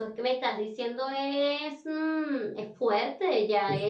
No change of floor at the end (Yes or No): Yes